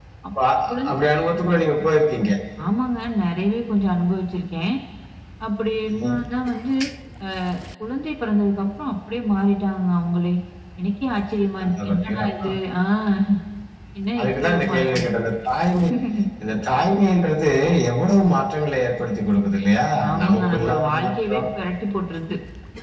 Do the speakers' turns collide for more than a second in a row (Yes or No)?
Yes